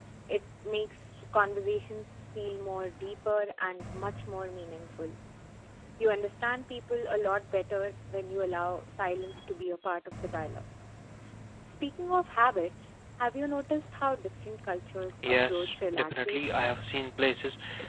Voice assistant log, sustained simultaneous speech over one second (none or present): present